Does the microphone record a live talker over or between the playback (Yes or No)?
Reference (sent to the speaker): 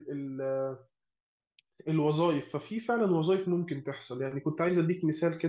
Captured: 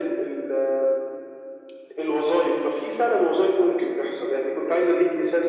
No